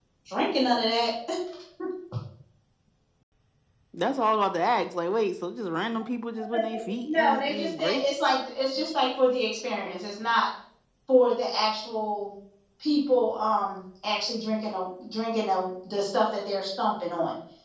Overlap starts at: 7 s

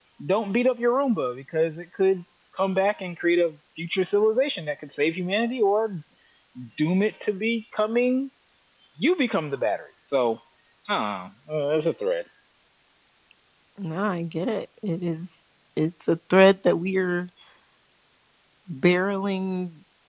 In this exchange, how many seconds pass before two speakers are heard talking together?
none

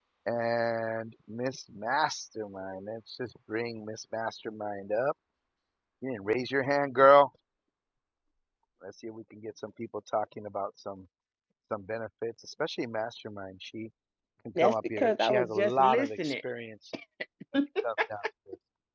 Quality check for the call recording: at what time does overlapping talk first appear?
15 s

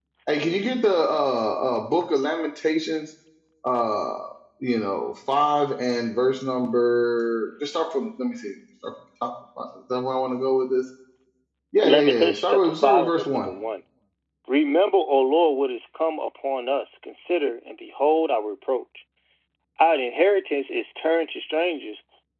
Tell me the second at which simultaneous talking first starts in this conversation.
12 s

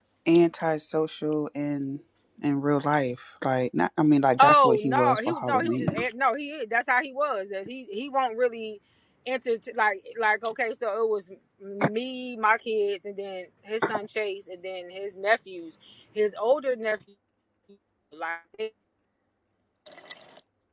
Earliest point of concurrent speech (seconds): 4 s

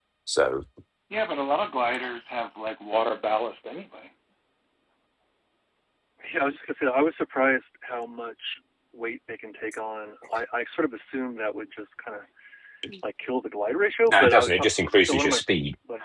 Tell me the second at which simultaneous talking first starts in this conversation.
14 s

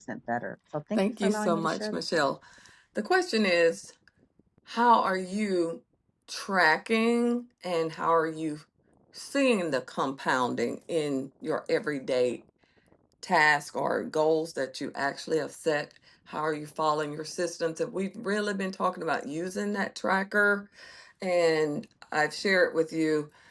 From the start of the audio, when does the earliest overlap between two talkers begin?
1 s

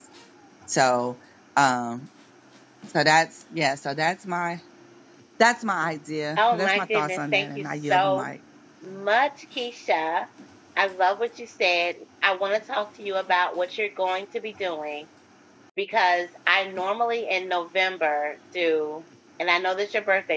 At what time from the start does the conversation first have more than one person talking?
6 s

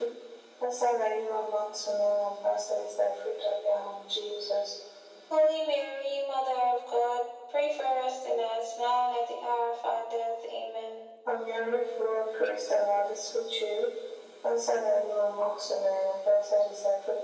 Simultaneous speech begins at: none

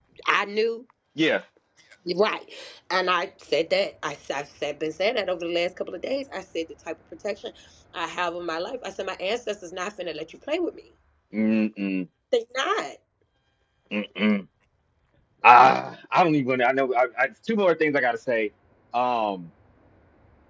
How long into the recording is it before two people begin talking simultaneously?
none

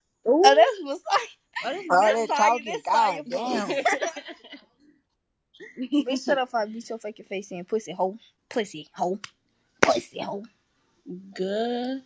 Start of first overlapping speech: 2 s

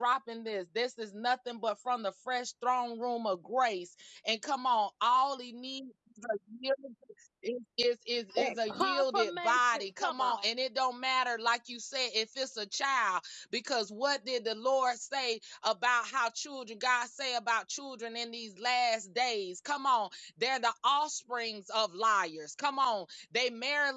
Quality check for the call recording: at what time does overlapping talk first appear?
8 s

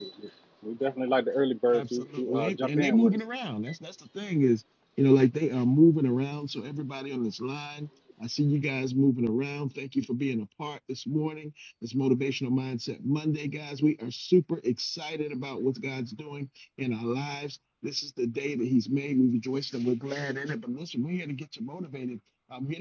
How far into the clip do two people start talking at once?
2 s

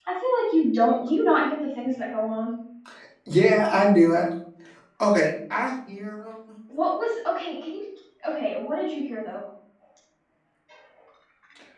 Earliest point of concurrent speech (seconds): none

